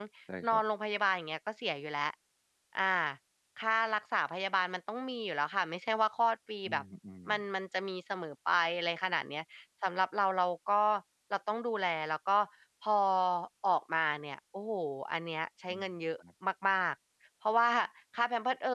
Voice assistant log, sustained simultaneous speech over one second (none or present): none